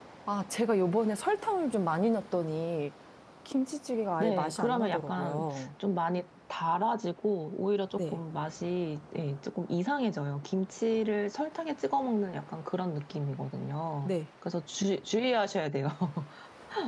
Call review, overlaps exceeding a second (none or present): present